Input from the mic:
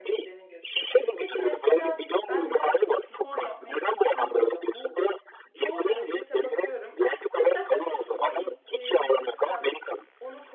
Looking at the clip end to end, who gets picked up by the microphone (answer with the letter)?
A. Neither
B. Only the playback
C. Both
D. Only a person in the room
C